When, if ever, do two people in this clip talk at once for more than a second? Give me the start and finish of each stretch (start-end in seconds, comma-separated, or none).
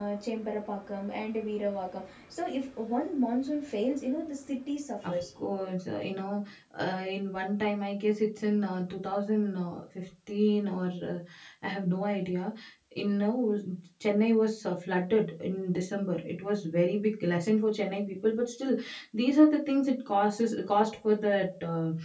none